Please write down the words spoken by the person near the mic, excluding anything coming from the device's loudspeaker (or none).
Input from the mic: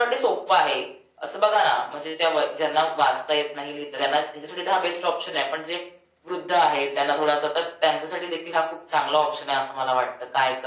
none